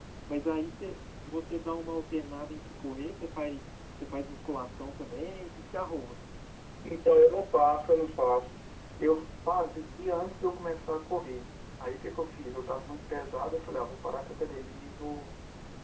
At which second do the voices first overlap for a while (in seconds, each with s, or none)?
none